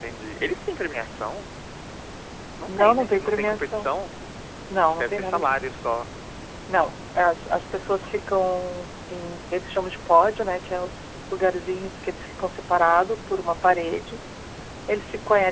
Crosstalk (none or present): present